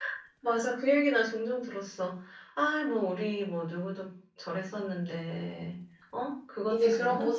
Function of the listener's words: taking over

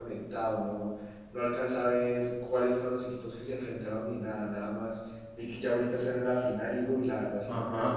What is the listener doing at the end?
taking over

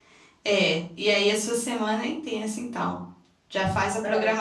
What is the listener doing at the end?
listening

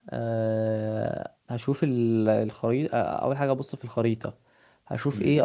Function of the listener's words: taking over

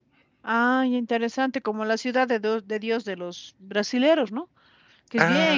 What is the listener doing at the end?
listening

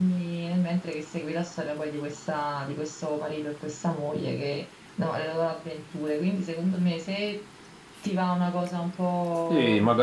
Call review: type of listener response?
taking over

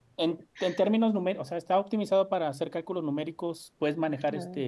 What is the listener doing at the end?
listening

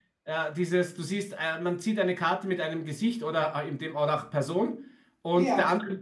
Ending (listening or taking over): listening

